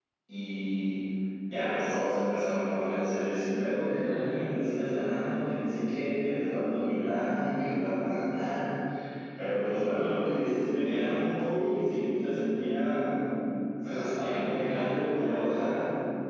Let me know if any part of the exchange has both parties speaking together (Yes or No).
Yes